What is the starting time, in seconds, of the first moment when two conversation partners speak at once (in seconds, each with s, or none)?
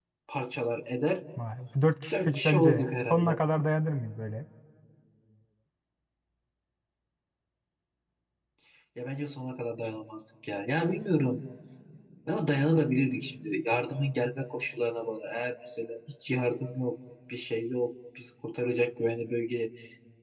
2.1 s